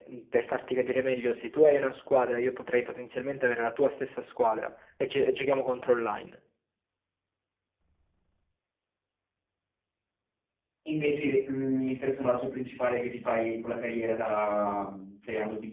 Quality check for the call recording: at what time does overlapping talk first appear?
none

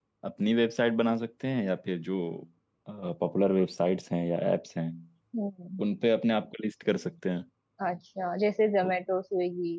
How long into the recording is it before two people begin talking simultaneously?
none

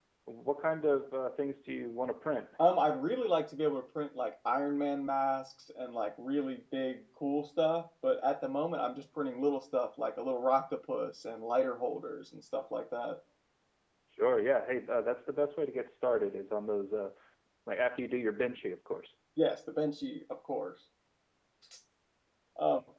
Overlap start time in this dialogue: none

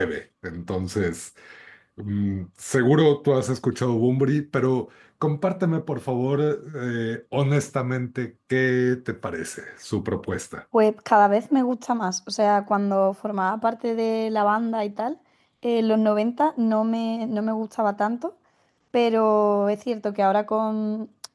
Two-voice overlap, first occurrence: none

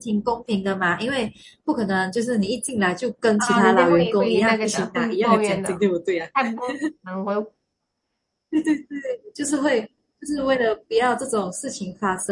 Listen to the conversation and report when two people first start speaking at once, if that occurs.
3 s

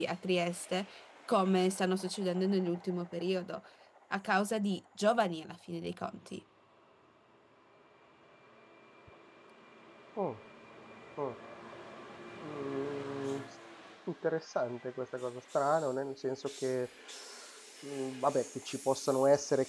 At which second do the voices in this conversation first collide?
none

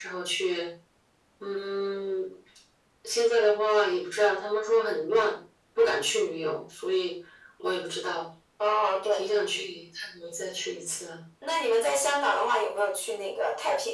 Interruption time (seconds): none

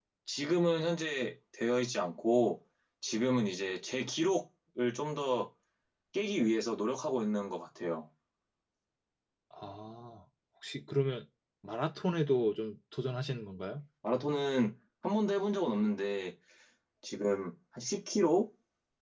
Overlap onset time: none

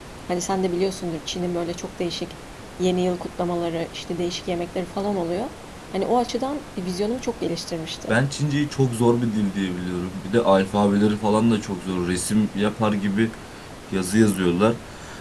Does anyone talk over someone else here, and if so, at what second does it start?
none

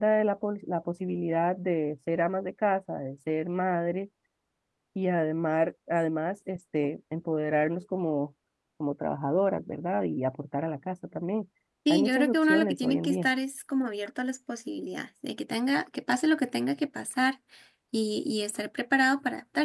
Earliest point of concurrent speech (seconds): 12 s

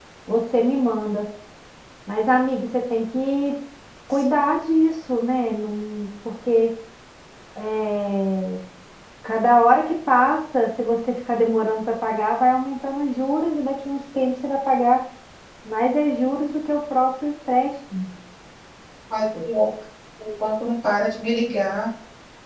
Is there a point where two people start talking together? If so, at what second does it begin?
none

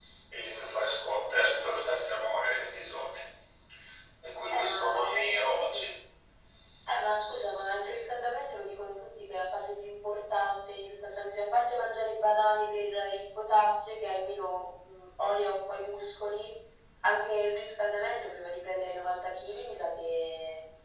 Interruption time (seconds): 5 s

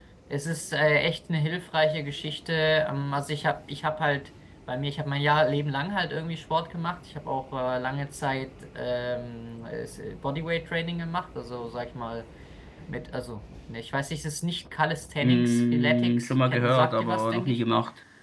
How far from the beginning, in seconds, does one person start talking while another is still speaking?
15 s

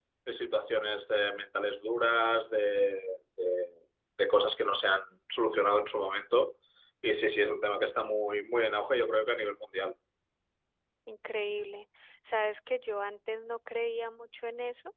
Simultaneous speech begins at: none

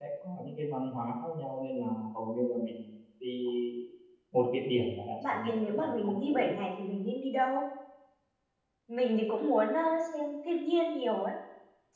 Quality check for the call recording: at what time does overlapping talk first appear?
5 s

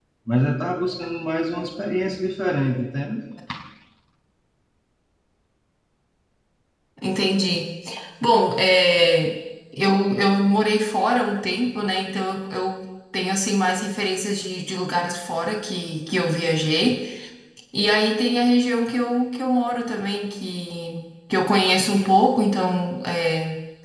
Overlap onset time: none

